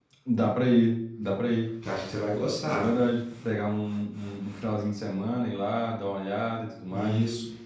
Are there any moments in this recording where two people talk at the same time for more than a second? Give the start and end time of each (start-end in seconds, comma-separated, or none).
none